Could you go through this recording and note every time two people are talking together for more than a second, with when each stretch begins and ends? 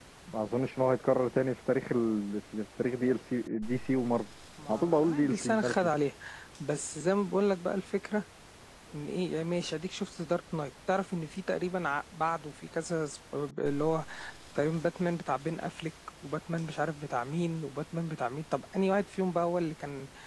4.7-5.9

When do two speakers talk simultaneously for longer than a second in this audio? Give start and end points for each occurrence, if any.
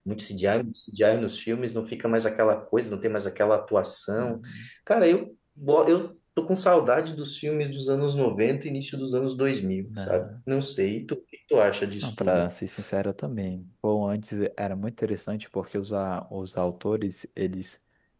none

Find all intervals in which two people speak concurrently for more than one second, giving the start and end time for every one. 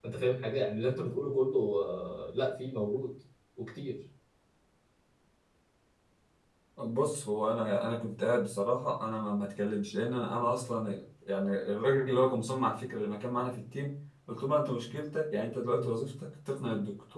none

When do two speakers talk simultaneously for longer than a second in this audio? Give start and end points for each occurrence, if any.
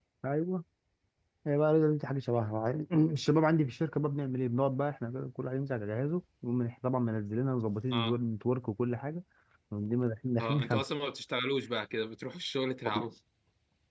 none

